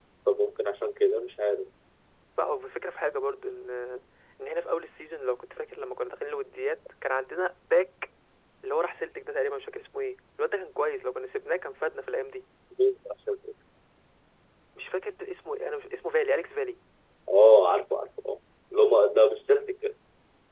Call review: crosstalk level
none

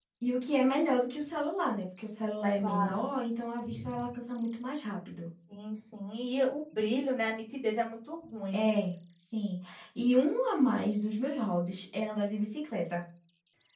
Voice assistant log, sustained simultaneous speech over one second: none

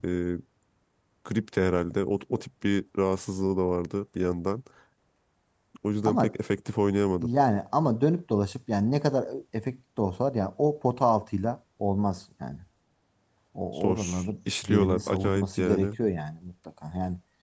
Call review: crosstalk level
present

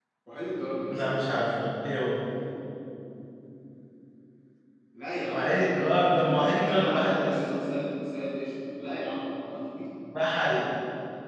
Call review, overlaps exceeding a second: present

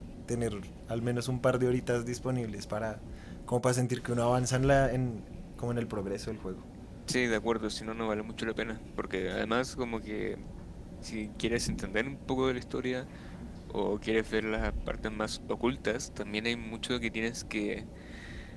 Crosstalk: none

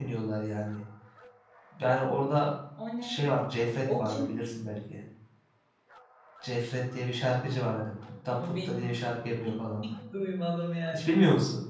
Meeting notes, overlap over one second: none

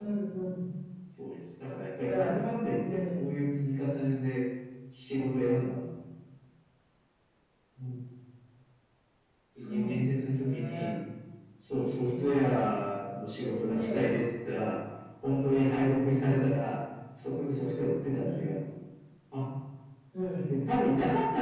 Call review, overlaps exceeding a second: present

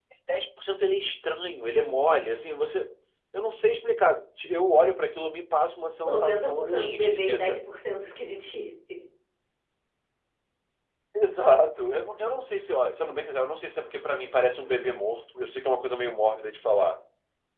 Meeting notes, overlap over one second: present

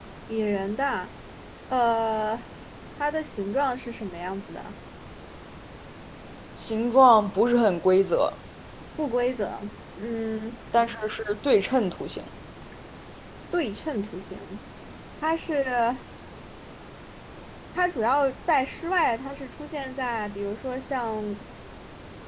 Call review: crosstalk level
none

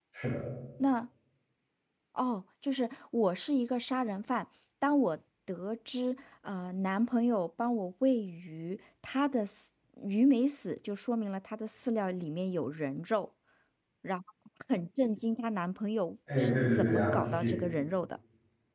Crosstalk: present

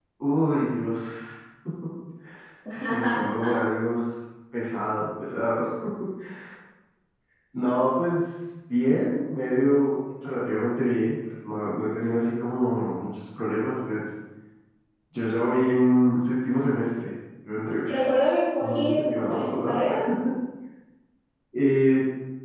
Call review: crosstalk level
present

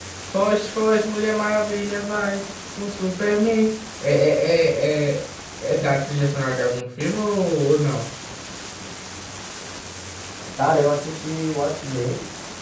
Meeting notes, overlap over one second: none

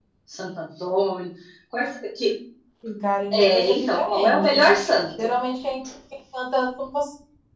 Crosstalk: present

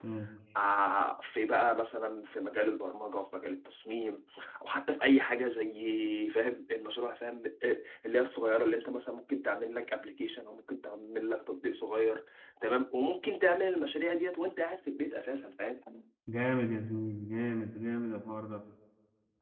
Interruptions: none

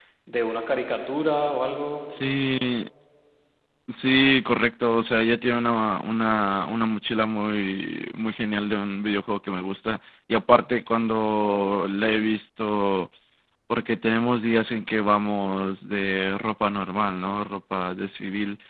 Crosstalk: none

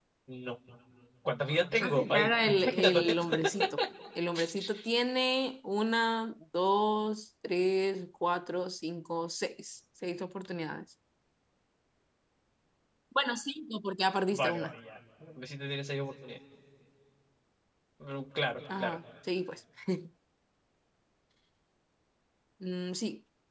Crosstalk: present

